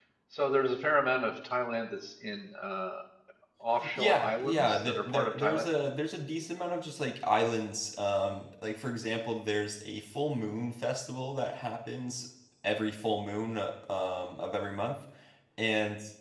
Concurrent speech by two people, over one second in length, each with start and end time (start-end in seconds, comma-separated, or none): 4.0-5.7